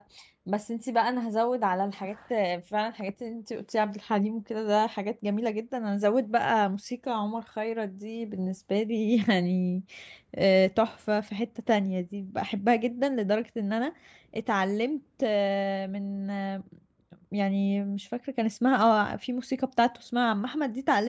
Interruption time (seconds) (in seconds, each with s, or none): none